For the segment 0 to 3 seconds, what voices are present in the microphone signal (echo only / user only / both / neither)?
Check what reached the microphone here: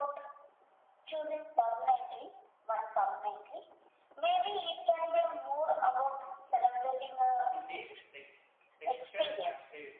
echo only